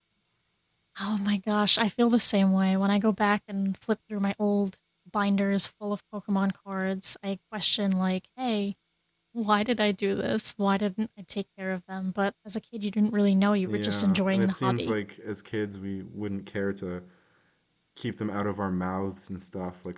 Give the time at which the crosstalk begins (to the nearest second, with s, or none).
14 s